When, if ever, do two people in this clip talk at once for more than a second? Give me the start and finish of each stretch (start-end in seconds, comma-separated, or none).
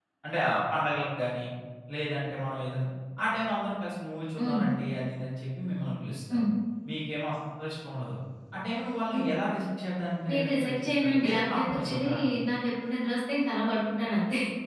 10.3-12.1